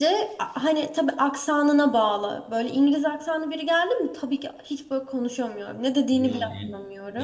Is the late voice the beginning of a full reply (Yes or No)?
Yes